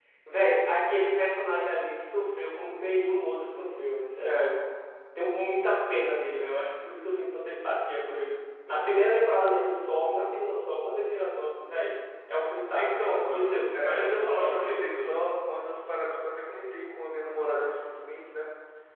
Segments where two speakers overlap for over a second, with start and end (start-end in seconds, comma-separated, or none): 12.7-15.1